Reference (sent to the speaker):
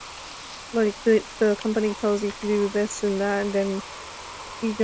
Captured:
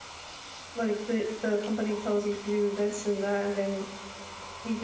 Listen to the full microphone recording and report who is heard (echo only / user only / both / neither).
echo only